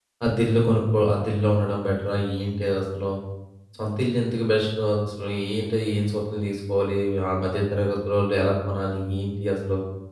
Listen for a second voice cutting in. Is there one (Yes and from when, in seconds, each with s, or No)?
No